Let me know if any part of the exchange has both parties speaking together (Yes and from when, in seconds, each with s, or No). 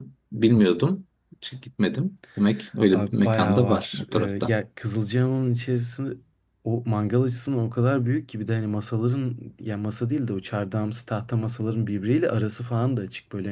Yes, from 2.9 s